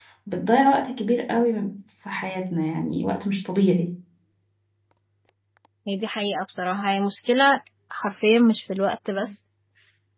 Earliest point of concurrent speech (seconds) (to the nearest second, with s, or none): none